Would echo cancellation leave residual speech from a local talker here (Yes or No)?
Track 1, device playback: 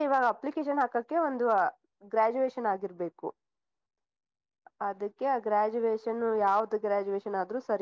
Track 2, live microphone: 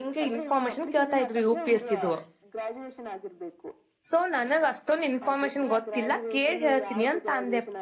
Yes